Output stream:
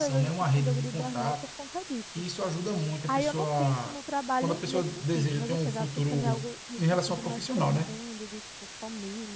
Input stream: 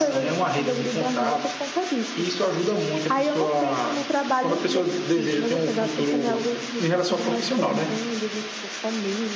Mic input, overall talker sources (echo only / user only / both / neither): echo only